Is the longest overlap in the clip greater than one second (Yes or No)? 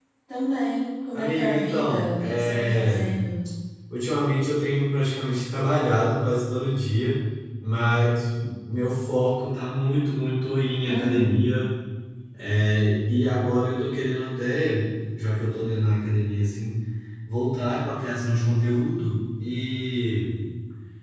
Yes